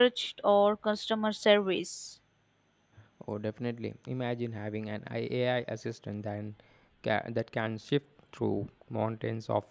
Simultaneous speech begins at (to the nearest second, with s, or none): none